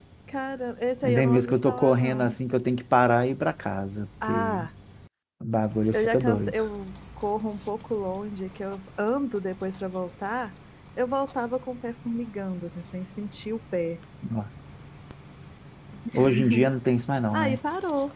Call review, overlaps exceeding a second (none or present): present